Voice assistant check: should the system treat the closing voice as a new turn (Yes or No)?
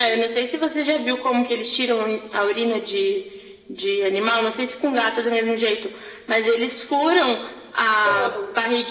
No